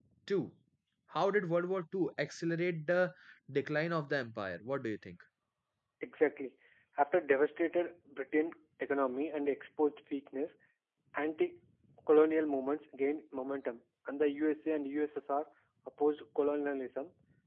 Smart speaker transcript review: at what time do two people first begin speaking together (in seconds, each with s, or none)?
none